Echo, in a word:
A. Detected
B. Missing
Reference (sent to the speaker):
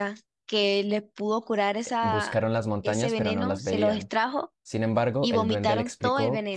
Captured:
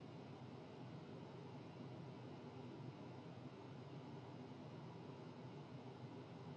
B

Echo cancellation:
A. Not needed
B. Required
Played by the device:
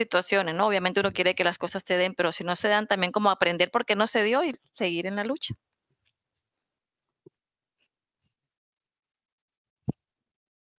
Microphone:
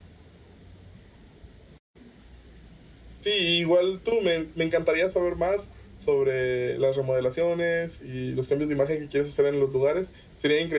A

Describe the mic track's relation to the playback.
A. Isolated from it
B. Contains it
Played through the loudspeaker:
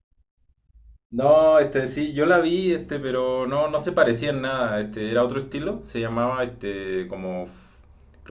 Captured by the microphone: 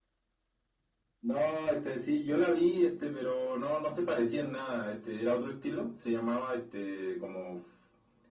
B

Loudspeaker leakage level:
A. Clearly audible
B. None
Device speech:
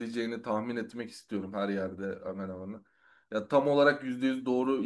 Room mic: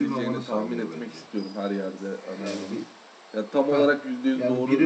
A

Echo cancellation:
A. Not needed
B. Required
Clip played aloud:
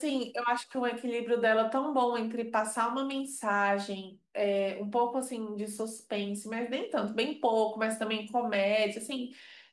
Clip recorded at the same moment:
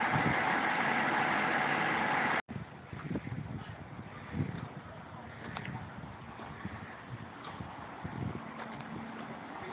A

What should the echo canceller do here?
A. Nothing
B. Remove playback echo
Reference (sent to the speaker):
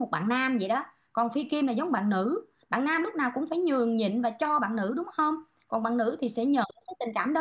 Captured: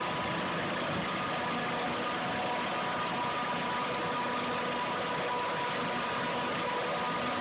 A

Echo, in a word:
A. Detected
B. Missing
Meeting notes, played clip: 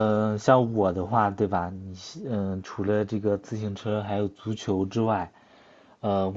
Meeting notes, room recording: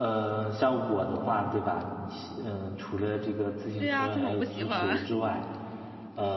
A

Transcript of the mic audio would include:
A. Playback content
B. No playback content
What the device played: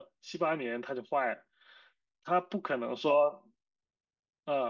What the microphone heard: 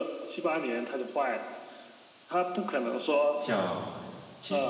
A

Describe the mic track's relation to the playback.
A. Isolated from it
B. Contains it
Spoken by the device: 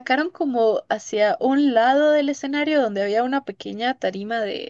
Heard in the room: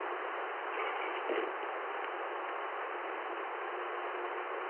A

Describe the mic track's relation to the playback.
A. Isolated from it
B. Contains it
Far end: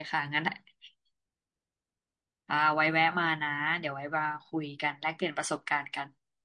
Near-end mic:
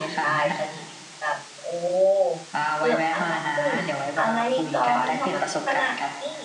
B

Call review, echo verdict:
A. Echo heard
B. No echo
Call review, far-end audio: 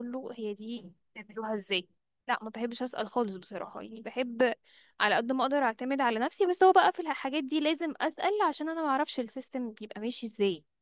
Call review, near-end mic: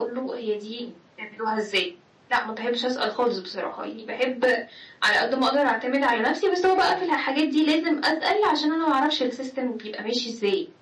A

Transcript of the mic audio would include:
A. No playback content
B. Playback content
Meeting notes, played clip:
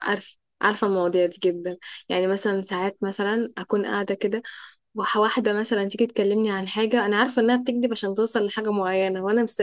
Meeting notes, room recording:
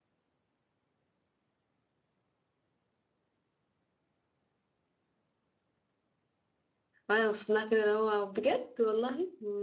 A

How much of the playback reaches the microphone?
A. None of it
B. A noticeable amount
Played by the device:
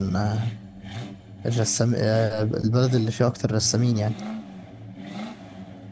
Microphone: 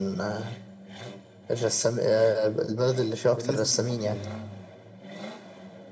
B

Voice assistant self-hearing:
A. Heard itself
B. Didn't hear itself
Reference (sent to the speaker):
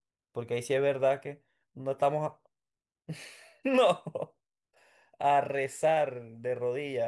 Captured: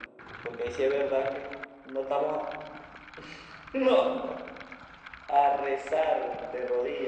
A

